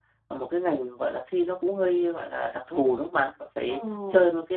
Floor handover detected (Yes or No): No